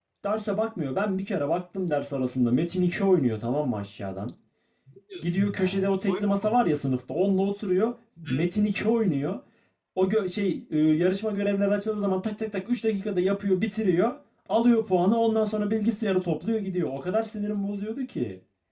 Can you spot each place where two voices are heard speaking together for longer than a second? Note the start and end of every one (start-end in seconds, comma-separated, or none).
5.2-6.8